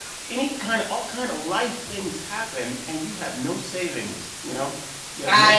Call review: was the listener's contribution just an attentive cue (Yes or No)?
No